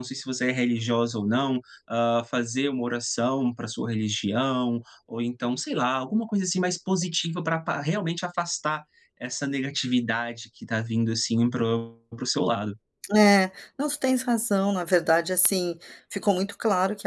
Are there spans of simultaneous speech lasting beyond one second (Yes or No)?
No